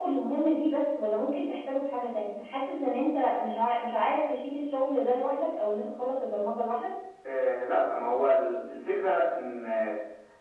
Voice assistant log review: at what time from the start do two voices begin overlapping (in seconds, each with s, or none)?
none